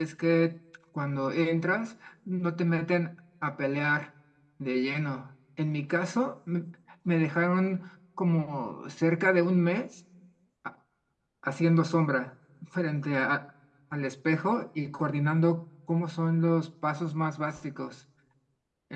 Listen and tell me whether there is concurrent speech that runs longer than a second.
No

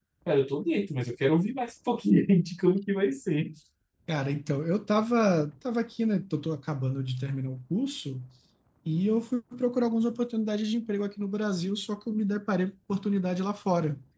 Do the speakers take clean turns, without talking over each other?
Yes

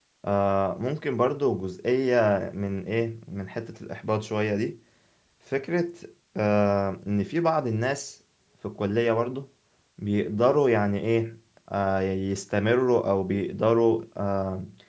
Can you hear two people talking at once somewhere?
No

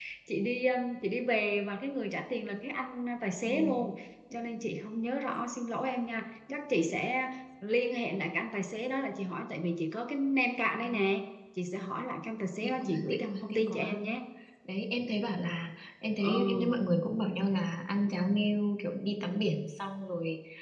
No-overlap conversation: No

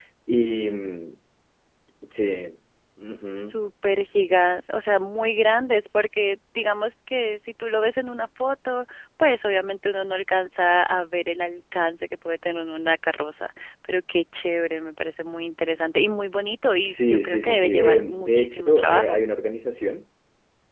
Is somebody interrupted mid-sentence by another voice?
Yes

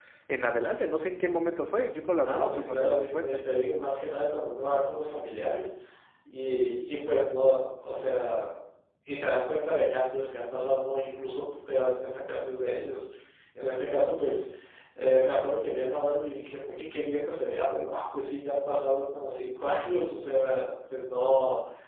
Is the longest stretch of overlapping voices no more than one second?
No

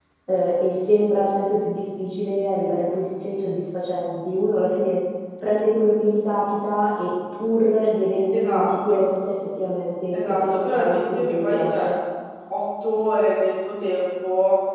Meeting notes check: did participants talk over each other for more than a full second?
Yes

